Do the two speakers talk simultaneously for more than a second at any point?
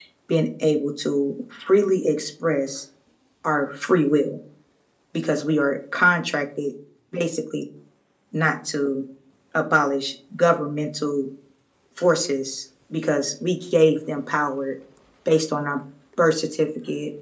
No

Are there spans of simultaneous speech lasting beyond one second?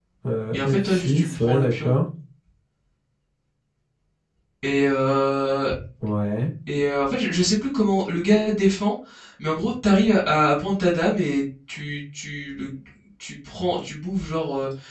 Yes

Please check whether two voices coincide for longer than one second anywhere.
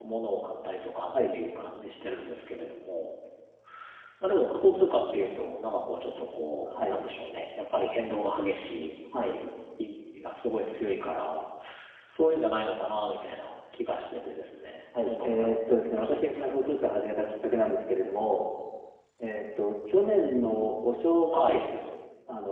Yes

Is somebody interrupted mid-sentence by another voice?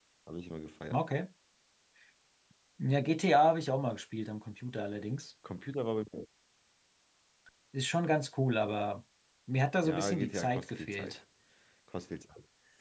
Yes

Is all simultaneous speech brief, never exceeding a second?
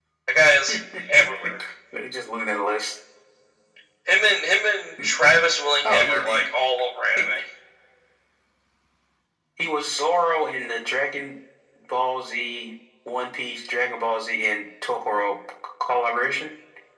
Yes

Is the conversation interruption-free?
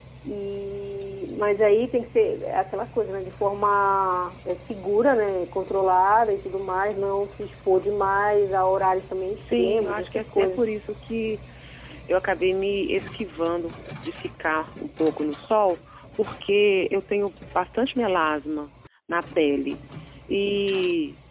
No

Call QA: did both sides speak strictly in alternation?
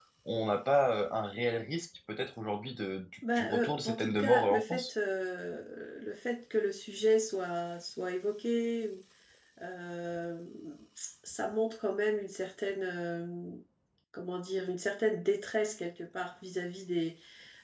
No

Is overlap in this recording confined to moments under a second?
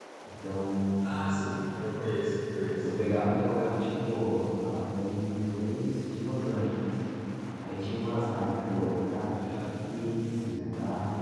Yes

